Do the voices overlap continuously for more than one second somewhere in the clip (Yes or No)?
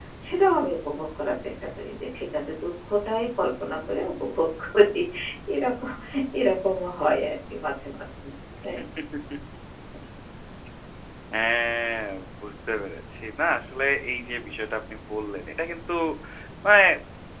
No